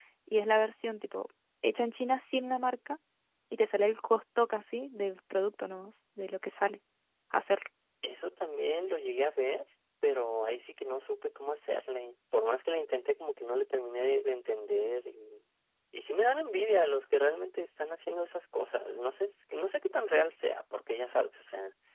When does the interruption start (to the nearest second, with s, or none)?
none